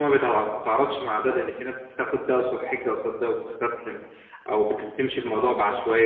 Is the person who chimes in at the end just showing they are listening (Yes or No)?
Yes